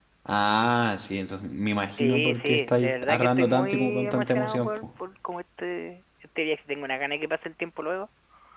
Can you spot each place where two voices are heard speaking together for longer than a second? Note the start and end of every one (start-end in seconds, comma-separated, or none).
2.0-4.8